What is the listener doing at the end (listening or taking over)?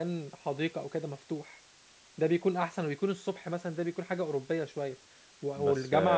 listening